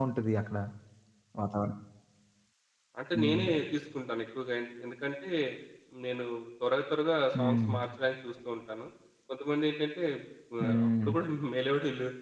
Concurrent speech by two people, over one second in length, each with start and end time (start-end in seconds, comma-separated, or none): none